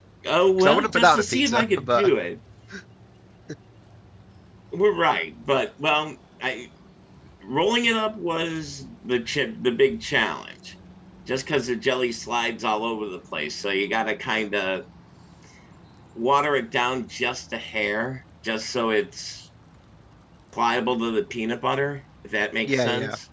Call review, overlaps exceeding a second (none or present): present